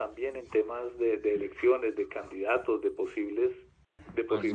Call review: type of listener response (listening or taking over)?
taking over